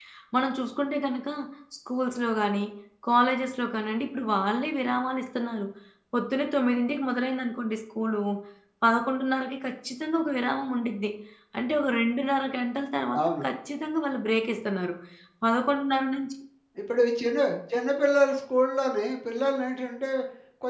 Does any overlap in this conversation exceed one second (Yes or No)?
No